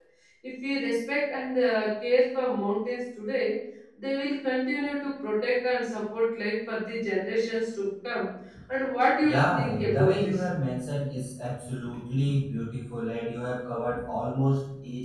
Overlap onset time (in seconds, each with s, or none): 9.2 s